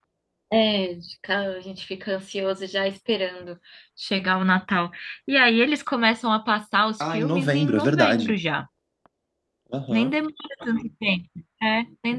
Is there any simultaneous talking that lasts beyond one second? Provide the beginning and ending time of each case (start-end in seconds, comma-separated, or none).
7.0-8.3